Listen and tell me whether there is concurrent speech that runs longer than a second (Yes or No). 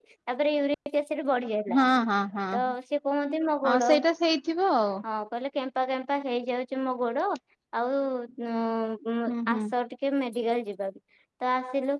No